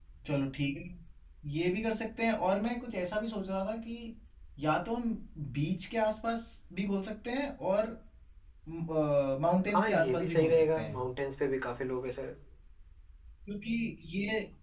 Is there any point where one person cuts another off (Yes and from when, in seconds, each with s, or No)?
Yes, from 9.7 s